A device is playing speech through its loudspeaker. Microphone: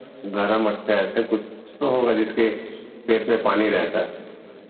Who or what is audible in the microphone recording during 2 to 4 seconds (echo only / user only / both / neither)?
echo only